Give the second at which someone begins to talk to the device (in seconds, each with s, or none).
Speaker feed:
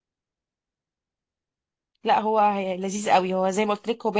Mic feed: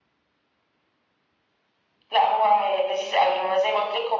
none